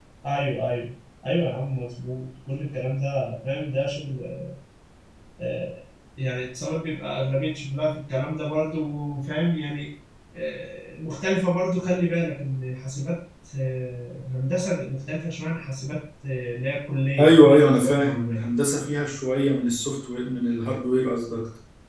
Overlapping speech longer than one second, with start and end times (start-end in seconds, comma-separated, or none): 17.2-18.4